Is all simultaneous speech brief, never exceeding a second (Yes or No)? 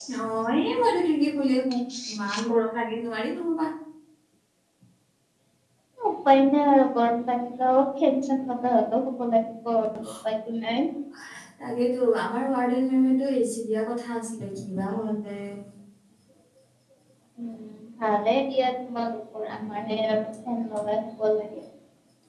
Yes